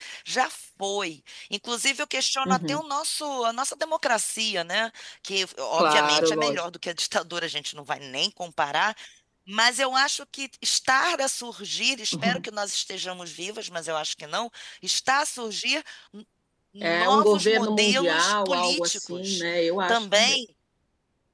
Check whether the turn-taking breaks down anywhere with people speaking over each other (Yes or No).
Yes